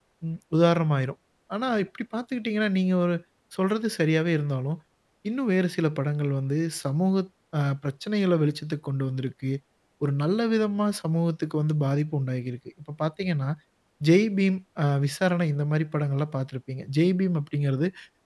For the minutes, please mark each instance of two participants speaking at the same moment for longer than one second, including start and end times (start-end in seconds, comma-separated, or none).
none